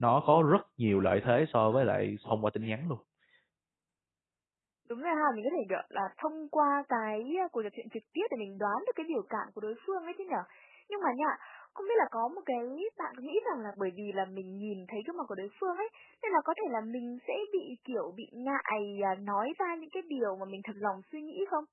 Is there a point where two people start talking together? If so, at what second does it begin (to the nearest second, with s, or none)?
none